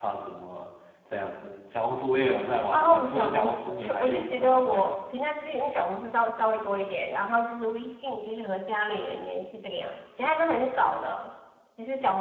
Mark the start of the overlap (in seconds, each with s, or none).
2.7 s